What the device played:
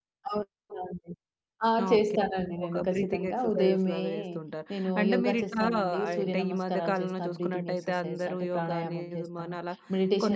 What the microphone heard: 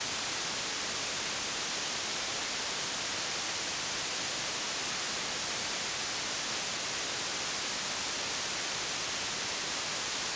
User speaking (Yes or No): No